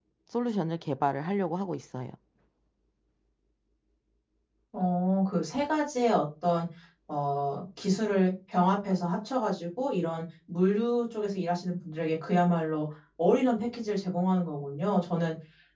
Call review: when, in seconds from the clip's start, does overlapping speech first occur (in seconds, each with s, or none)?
none